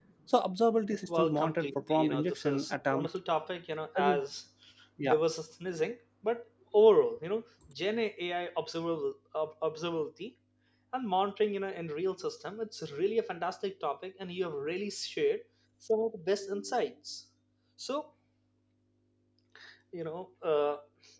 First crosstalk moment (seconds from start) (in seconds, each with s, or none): 1.2 s